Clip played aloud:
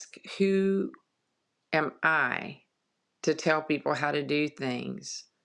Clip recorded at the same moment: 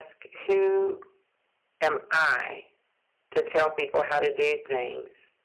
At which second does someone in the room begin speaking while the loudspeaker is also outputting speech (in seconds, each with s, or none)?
none